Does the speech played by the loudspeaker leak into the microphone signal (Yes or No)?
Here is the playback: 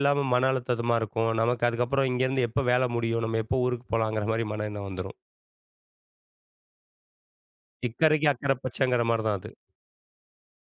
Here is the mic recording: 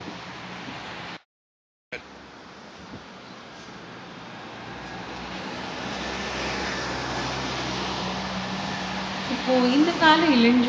No